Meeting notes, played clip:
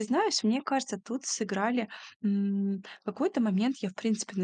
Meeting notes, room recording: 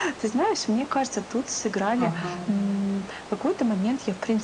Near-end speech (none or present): present